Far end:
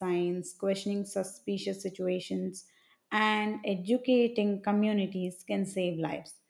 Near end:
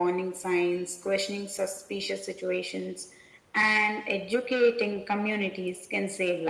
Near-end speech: none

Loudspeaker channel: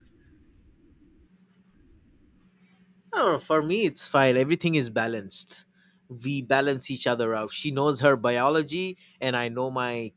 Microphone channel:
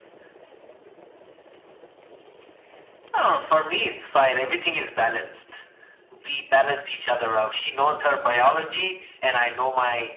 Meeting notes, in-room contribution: none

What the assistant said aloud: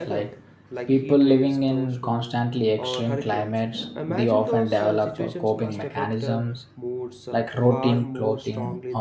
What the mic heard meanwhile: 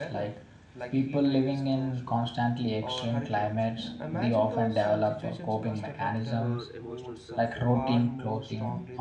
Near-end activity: present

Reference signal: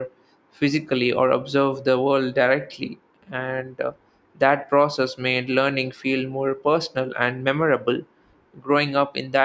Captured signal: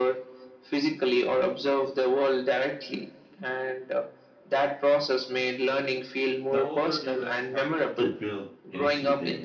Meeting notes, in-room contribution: present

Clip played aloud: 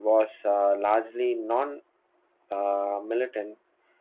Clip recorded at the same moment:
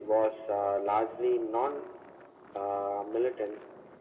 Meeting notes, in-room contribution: none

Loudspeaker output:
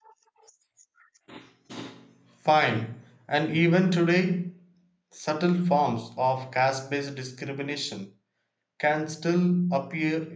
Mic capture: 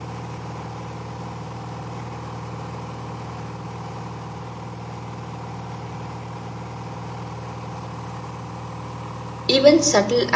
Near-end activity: present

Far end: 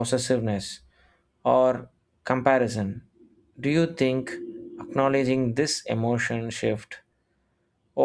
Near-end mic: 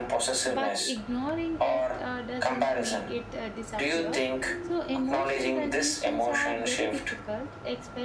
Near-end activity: present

